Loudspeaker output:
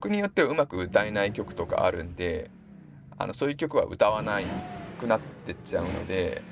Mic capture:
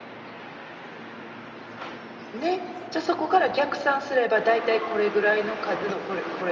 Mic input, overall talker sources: user only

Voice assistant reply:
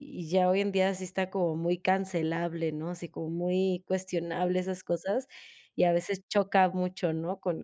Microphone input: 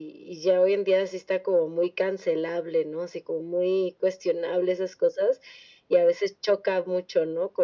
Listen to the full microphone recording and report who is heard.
echo only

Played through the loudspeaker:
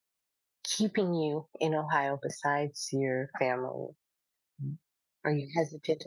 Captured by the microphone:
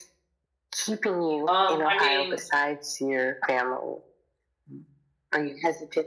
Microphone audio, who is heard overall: both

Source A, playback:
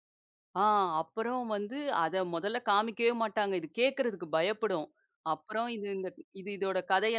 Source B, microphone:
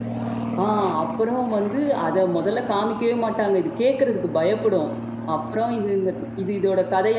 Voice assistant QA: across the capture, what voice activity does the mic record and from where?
echo only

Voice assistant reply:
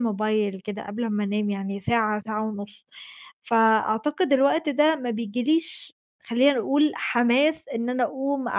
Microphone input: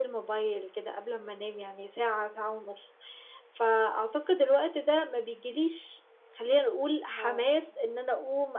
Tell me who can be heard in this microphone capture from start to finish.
both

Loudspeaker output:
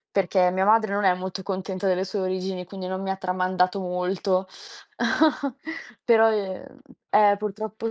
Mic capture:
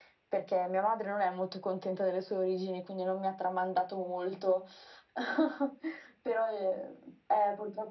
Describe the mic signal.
echo only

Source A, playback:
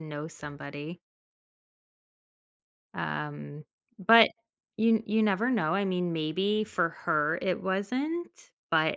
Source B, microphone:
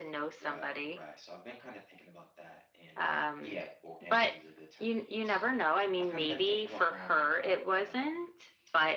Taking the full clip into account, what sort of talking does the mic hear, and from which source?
both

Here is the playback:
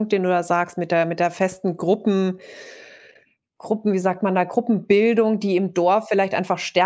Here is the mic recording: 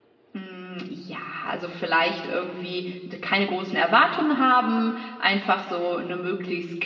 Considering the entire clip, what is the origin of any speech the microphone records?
user only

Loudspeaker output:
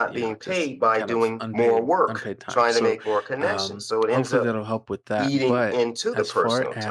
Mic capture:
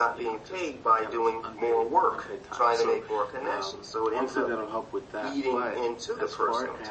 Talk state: echo only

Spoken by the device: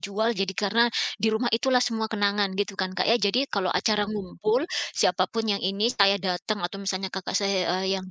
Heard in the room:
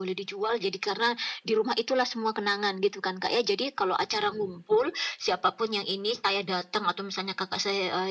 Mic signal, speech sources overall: echo only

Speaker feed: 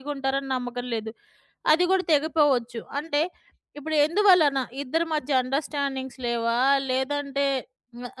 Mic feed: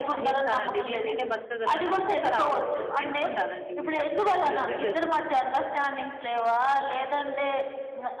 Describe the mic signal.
both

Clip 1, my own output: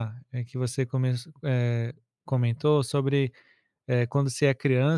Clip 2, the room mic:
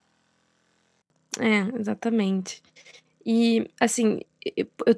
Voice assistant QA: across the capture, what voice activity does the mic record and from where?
user only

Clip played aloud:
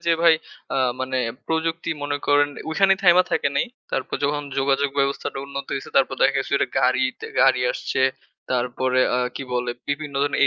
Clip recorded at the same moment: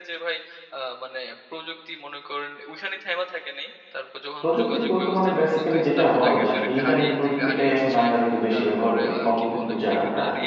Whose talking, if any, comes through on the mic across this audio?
both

